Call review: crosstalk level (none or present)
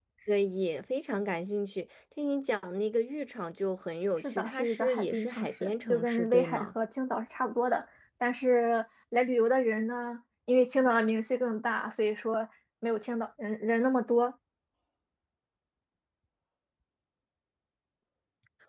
present